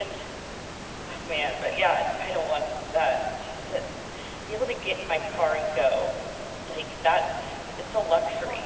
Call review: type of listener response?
taking over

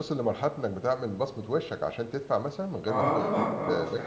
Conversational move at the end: taking over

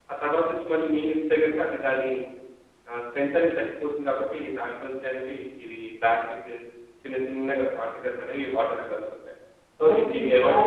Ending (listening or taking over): taking over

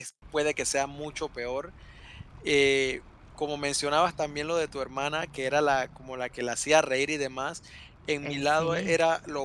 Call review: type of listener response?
listening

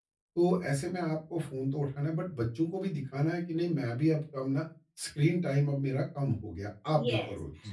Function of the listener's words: taking over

